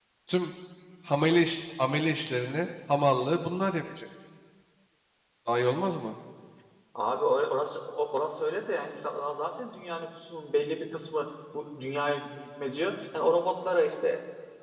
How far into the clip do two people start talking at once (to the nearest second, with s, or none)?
none